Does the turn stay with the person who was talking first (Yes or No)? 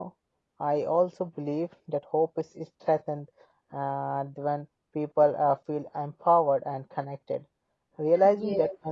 Yes